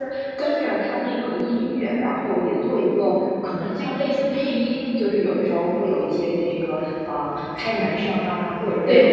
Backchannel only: Yes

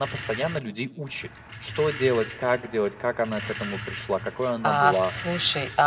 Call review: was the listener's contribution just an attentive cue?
No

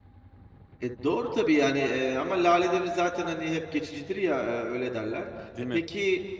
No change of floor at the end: Yes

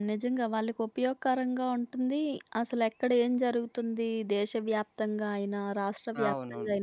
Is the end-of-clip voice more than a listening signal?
No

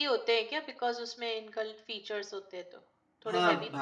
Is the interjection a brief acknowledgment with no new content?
No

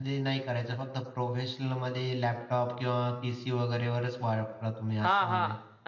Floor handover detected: Yes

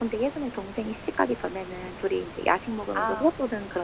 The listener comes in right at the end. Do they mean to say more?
No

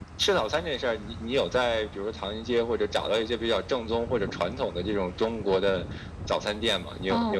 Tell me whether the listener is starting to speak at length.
Yes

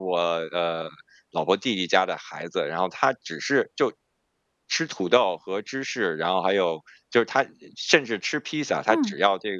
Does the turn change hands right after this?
No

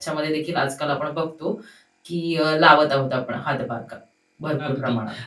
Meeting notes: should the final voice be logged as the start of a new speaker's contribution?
Yes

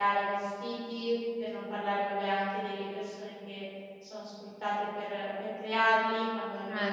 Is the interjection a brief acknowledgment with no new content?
Yes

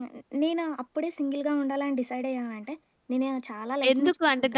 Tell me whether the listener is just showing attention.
No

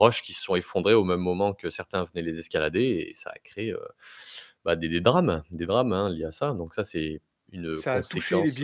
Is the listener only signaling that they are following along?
No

